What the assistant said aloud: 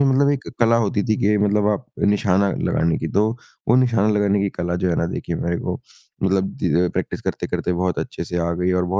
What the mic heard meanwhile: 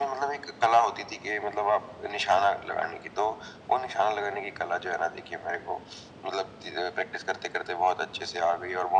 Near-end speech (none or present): none